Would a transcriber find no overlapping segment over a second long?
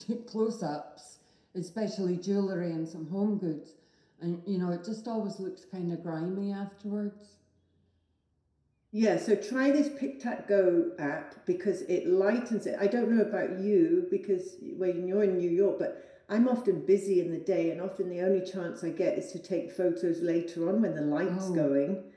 Yes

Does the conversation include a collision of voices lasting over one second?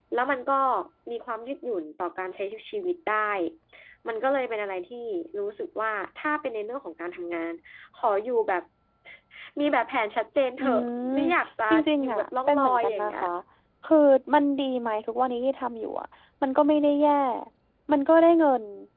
Yes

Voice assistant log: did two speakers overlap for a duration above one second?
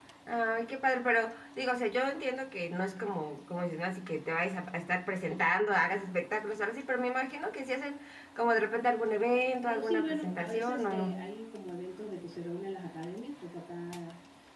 Yes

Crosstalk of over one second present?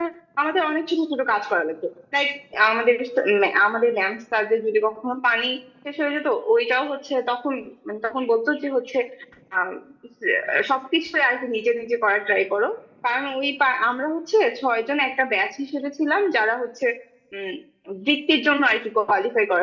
No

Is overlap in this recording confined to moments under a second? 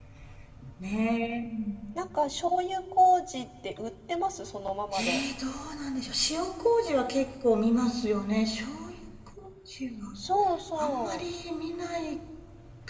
Yes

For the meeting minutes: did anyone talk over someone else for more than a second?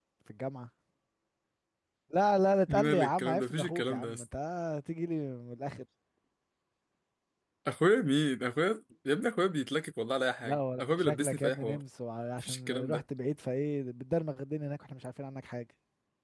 Yes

